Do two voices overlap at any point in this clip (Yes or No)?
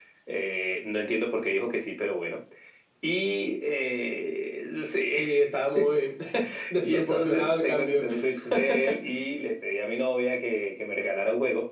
Yes